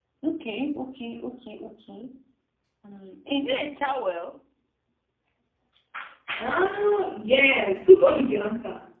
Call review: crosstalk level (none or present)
none